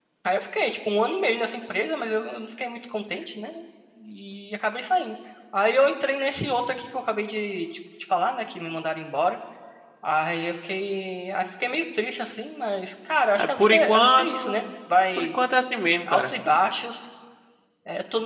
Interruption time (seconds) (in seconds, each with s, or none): 13.3 s